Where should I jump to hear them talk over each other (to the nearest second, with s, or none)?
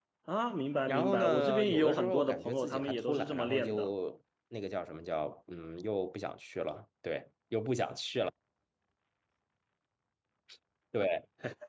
1 s